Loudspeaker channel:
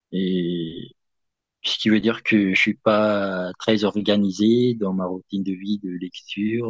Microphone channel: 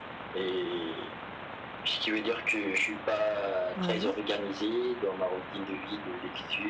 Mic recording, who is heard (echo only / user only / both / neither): both